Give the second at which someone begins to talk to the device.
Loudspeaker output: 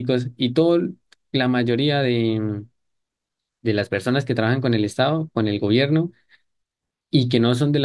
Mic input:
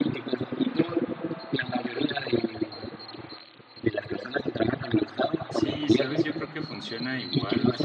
5.5 s

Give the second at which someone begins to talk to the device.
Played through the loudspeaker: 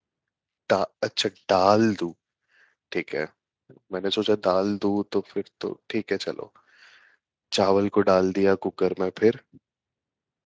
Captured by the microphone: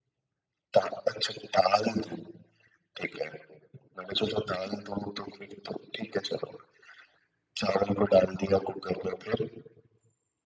none

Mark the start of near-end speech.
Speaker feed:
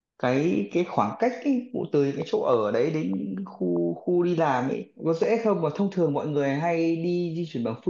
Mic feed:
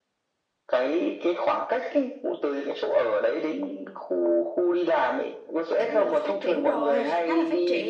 5.8 s

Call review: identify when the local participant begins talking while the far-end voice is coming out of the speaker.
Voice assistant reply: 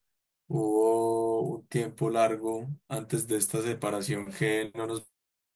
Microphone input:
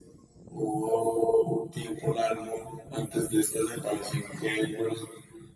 none

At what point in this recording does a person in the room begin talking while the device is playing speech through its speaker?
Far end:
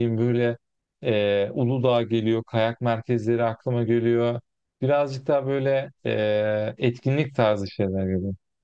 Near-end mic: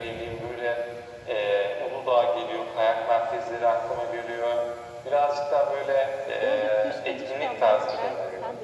6.4 s

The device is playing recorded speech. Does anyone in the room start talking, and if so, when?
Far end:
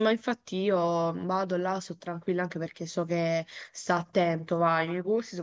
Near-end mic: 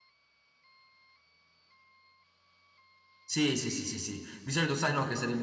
3.2 s

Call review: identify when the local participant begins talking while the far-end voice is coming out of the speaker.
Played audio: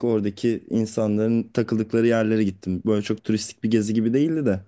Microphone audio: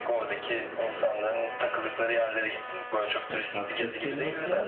3.3 s

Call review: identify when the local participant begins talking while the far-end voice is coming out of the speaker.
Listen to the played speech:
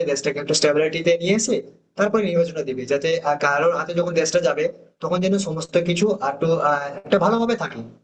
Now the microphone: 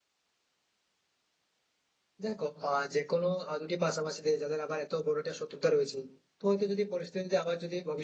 2.2 s

